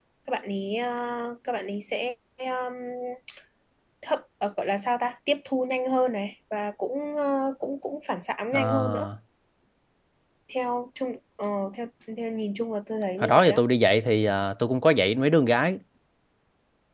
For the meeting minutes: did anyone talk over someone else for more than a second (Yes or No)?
No